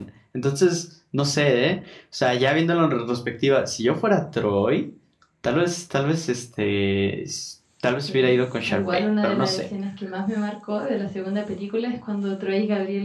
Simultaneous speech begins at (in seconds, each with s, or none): 8.1 s